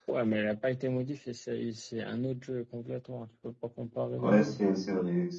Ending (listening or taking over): taking over